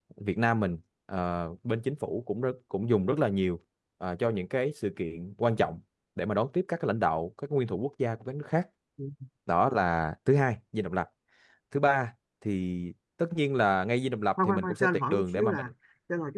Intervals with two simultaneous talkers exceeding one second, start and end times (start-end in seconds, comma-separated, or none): 14.4-15.7